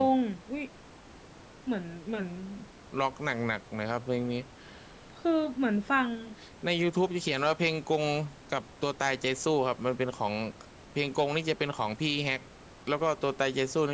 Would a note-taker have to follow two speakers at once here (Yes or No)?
No